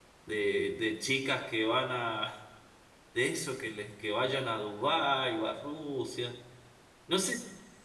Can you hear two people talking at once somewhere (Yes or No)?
No